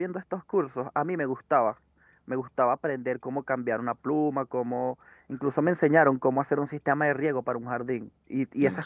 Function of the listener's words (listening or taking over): listening